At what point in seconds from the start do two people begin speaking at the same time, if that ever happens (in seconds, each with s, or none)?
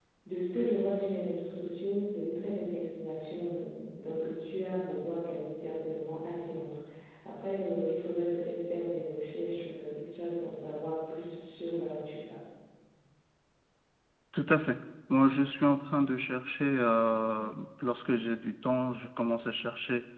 none